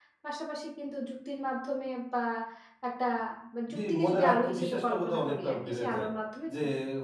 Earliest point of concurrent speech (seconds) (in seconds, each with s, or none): 3.8 s